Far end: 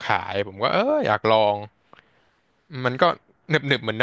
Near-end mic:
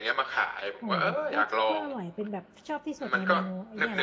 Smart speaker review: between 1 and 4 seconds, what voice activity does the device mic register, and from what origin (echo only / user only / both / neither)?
both